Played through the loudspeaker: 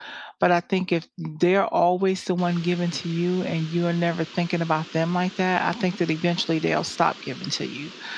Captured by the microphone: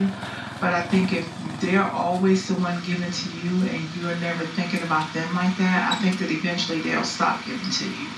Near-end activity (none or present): none